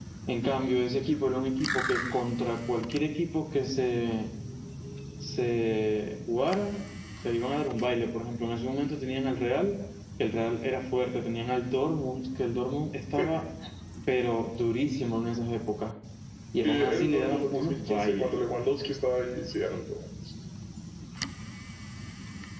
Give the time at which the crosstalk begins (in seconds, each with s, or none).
16.6 s